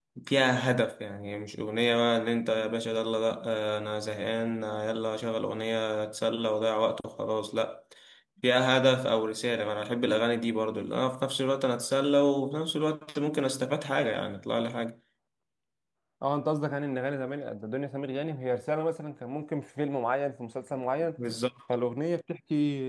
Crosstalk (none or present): none